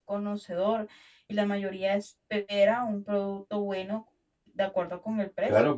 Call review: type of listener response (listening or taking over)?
taking over